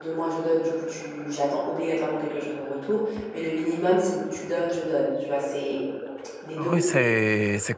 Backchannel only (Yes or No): No